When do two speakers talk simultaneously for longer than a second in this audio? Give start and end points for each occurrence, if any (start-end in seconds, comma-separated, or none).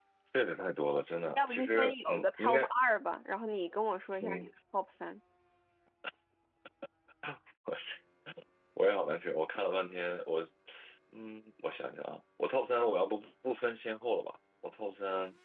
1.4-2.6